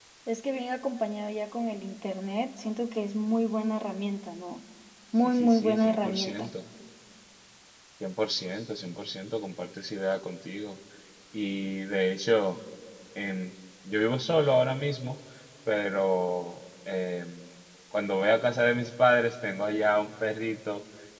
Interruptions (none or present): present